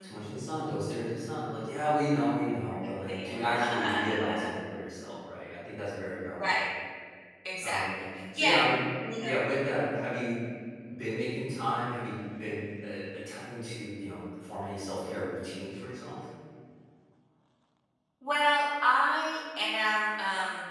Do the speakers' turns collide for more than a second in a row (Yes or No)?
Yes